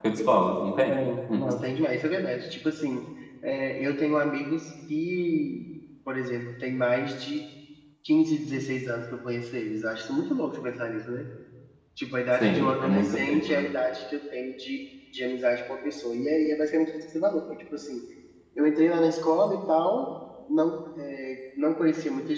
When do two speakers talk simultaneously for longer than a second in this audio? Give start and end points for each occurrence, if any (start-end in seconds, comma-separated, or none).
12.4-13.6